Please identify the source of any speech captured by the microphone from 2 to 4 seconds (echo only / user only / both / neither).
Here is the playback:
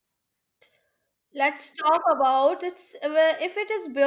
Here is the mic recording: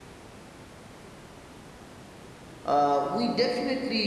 user only